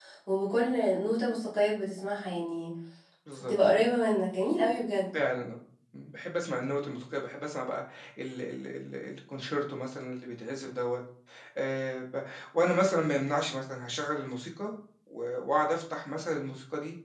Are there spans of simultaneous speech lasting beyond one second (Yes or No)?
No